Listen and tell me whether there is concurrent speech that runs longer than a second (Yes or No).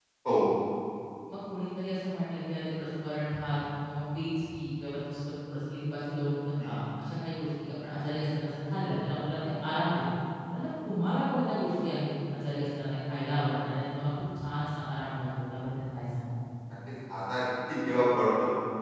No